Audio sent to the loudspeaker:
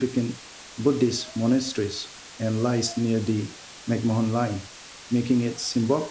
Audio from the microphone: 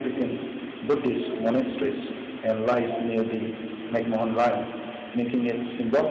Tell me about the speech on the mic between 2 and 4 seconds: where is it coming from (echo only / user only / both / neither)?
echo only